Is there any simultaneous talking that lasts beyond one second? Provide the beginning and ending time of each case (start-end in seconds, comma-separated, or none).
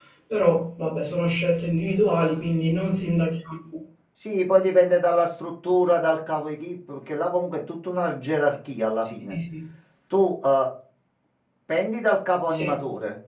none